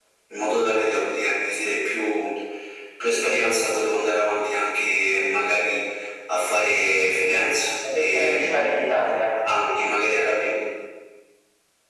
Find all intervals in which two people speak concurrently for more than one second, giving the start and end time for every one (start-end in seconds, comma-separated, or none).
7.9-9.1